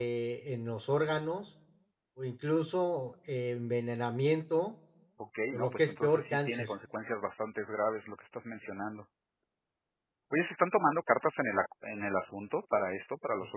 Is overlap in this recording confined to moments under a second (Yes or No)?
No